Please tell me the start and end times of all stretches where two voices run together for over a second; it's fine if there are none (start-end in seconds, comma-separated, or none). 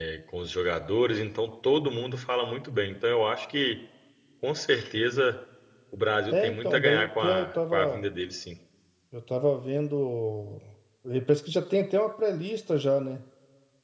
6.3-8.0